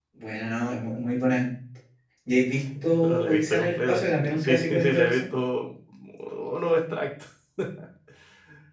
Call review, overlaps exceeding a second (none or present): present